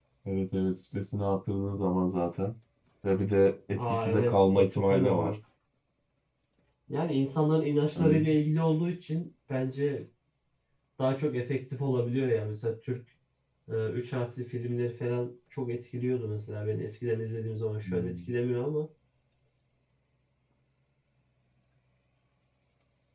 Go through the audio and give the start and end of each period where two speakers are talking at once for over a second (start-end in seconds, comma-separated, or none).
3.7-5.3